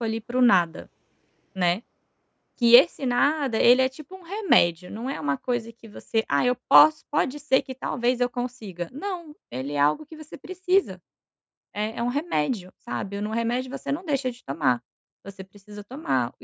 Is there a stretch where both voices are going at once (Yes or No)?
No